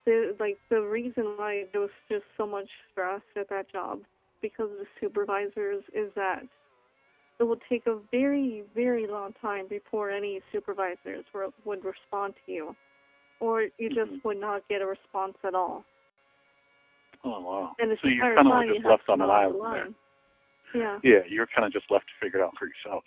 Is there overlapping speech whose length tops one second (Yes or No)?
Yes